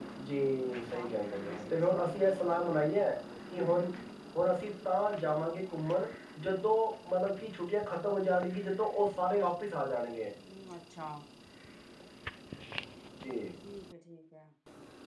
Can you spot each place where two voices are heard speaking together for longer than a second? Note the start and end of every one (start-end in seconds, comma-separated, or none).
0.9-2.2